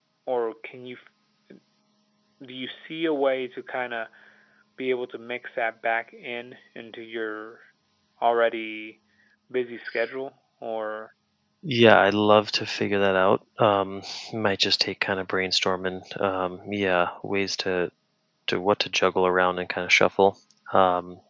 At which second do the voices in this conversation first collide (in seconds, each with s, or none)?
none